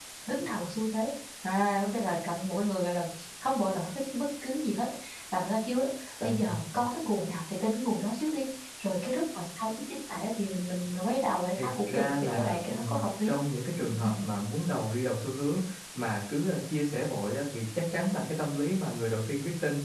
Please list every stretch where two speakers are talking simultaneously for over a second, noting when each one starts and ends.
11.6-13.4

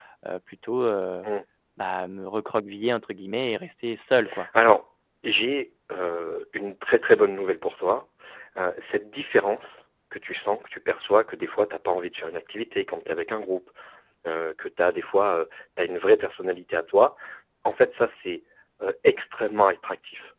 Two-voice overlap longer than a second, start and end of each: none

